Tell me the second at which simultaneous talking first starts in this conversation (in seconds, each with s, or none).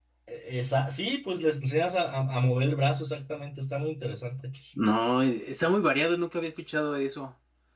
none